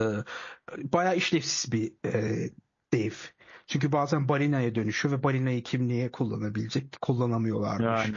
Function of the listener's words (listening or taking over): listening